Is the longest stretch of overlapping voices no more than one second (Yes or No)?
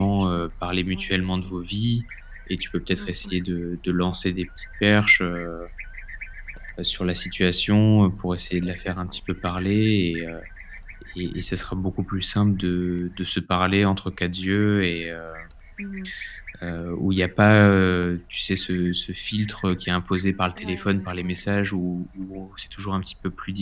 No